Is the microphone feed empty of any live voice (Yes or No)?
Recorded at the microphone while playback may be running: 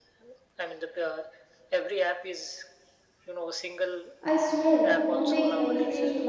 No